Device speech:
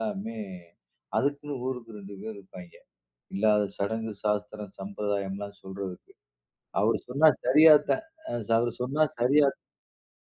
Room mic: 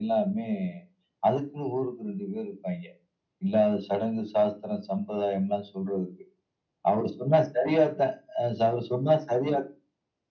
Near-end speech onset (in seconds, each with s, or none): none